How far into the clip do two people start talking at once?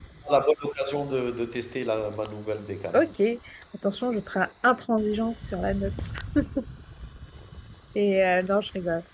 none

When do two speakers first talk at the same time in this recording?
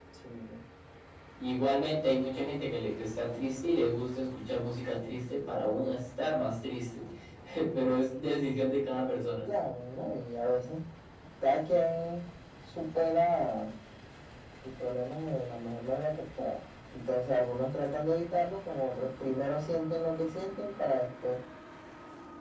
none

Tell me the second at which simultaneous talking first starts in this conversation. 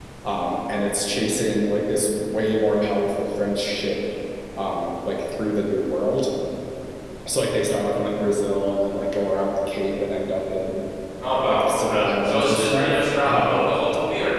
11 s

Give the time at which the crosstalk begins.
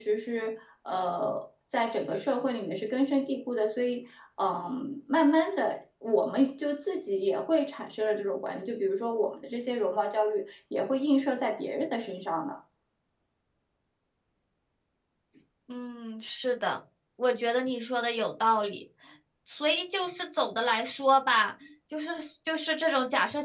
none

